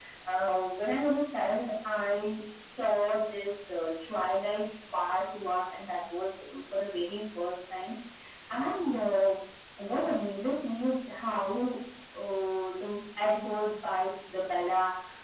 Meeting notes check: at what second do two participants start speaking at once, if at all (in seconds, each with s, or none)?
none